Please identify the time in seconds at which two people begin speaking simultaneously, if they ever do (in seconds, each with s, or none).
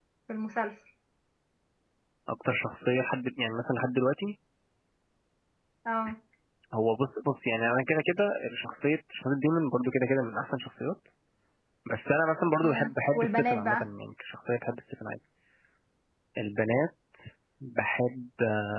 12.6 s